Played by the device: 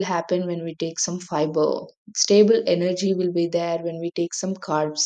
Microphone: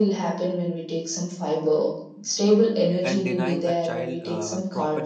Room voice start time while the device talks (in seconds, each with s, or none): 3.0 s